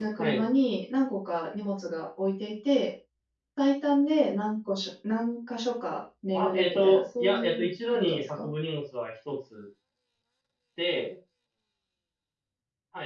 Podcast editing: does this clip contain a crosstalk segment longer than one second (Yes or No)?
Yes